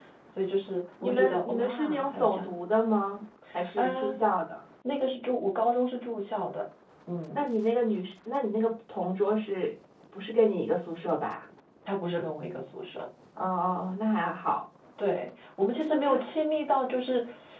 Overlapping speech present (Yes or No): Yes